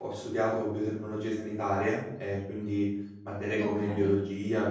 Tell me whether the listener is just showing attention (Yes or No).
Yes